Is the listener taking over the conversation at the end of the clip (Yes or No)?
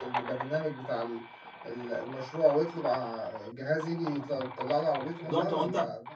Yes